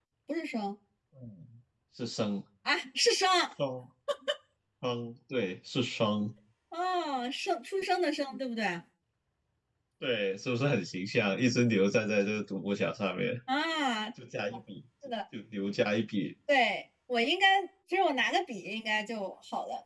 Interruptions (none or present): none